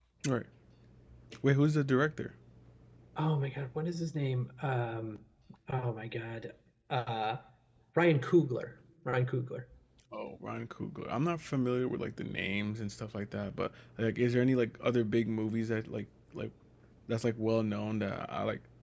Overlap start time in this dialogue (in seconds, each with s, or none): none